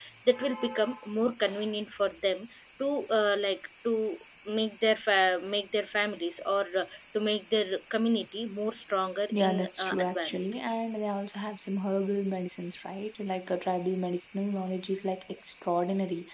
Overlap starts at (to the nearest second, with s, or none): 9 s